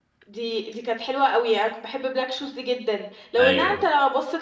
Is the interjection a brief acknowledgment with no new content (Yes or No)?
Yes